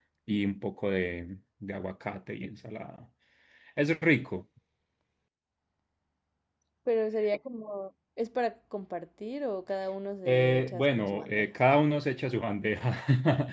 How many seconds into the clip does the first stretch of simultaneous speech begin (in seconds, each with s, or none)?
10.2 s